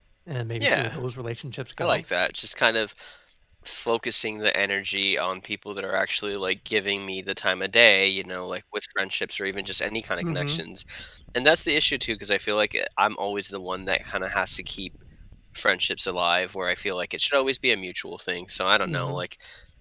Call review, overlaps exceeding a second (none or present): none